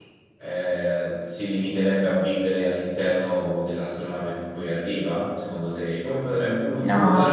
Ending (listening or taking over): taking over